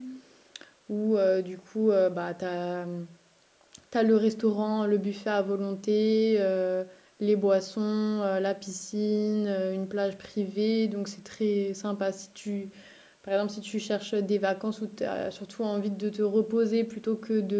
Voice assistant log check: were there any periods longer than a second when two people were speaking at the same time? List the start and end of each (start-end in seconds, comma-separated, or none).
none